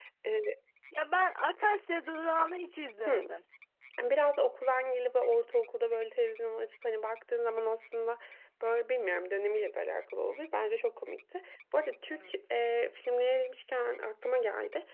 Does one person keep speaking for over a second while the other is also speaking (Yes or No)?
No